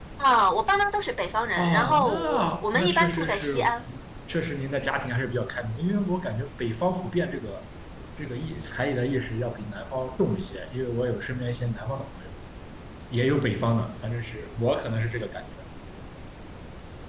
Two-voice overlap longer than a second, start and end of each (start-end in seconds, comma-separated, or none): 1.6-3.7